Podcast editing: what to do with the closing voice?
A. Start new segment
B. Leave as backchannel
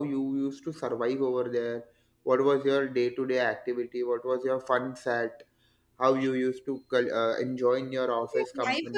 A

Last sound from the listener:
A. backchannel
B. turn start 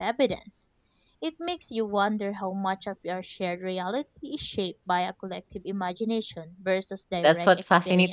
B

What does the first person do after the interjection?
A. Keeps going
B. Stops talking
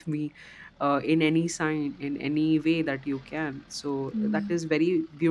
A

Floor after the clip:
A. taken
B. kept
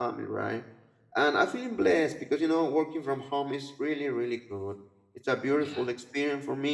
B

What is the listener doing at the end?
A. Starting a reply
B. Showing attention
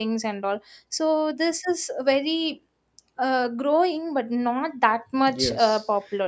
A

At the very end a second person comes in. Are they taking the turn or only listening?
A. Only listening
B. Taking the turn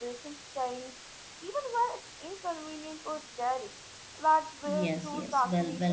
B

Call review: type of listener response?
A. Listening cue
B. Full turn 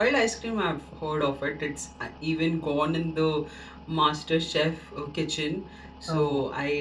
A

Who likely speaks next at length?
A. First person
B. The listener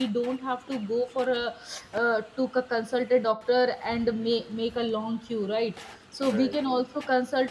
A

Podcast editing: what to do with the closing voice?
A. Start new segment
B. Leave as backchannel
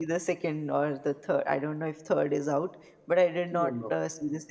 B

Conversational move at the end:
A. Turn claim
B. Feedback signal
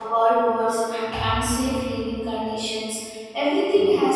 B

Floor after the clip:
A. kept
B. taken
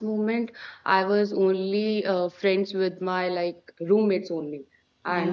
A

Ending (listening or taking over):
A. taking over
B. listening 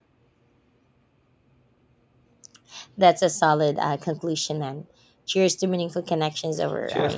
A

